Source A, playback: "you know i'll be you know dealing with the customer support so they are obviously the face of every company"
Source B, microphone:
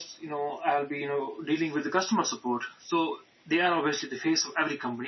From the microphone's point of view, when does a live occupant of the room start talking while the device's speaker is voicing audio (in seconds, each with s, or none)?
none